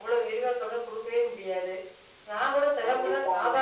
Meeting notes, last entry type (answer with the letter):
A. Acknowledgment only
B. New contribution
A